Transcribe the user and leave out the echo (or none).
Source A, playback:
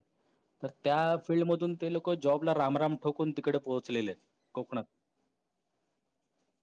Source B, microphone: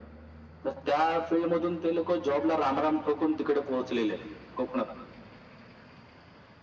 none